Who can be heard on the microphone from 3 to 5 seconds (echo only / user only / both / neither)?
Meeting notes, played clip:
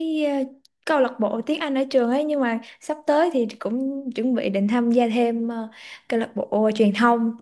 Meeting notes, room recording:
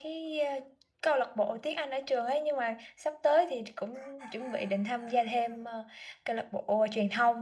echo only